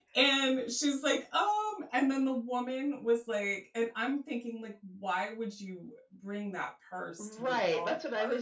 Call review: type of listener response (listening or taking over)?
taking over